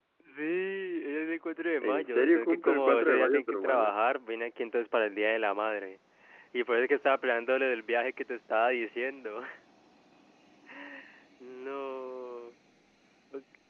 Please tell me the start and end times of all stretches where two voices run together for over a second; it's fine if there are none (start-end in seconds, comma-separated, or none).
1.8-3.9